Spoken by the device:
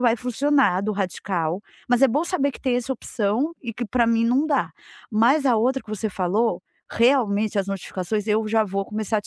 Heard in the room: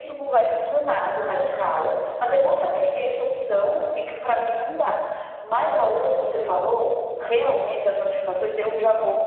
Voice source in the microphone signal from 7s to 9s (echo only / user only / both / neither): echo only